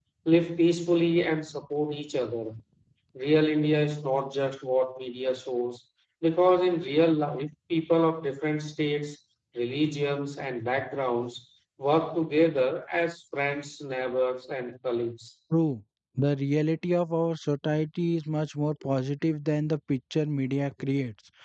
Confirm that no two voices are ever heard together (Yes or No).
Yes